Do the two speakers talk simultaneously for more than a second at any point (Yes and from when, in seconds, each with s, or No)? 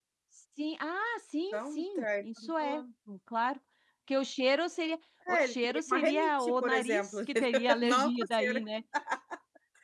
Yes, from 1.5 s